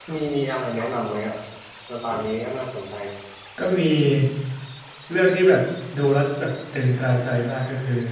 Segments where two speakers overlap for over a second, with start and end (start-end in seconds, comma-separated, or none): none